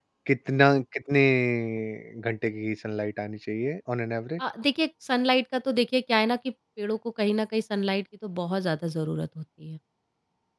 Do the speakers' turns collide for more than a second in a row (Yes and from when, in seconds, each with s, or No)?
No